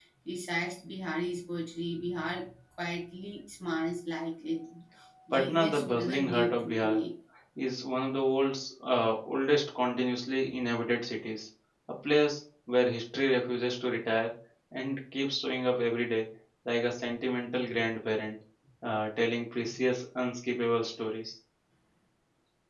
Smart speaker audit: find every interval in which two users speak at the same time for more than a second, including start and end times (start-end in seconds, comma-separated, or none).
5.3-7.0